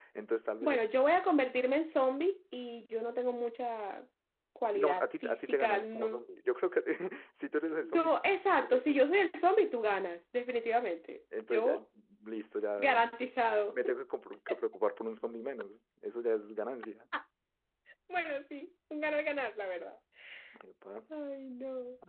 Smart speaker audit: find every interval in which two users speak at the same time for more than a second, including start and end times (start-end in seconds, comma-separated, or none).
4.7-6.2